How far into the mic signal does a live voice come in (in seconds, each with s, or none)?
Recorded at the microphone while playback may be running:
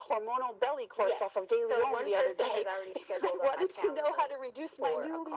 none